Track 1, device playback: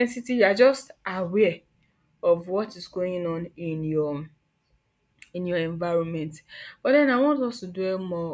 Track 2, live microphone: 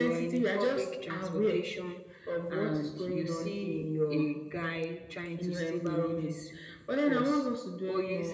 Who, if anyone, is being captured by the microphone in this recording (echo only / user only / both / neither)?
both